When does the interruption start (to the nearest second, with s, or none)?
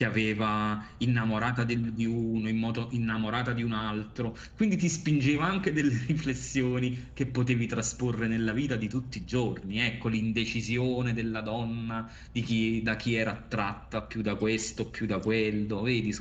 none